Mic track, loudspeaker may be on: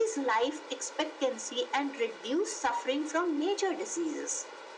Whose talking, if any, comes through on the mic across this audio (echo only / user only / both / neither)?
echo only